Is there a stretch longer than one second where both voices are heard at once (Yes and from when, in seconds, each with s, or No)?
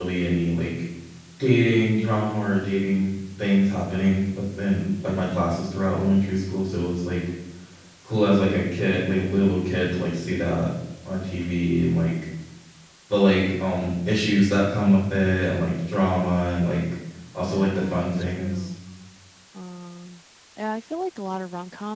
Yes, from 17.4 s